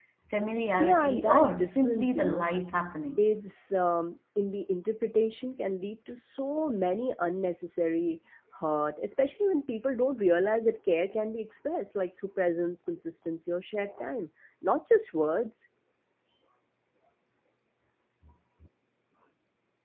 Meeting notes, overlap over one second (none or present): present